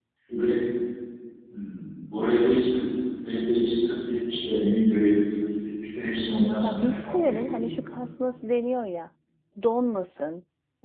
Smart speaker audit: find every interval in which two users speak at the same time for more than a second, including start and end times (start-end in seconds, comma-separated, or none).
6.6-7.9